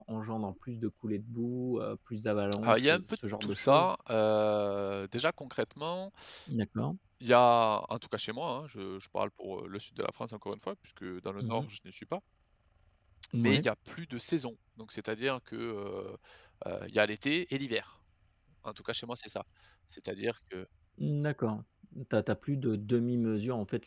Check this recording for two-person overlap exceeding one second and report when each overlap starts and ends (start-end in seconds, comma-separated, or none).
2.6-3.9